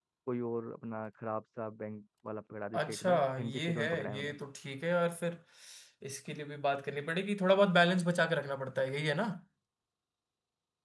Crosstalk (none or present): present